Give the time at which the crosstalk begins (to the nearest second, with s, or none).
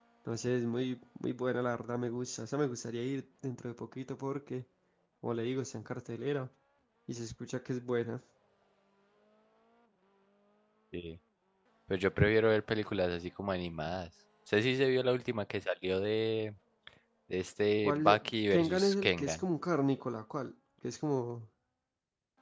18 s